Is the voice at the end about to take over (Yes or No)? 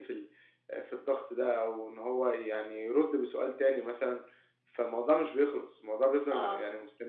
Yes